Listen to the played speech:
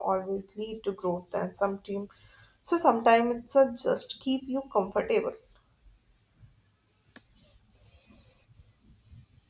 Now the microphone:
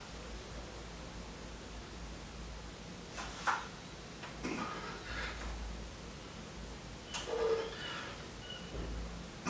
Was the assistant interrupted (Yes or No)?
No